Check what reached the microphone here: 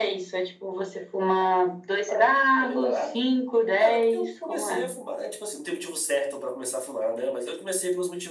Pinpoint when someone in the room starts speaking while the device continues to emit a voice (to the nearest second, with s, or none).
none